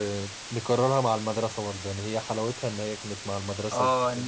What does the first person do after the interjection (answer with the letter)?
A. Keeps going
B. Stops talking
B